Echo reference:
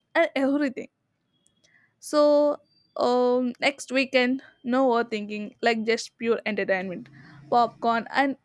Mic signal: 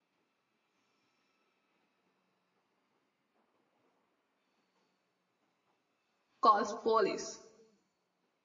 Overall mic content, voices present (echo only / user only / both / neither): user only